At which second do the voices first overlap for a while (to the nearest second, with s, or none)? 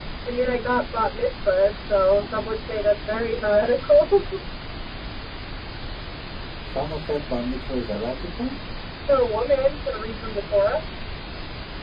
none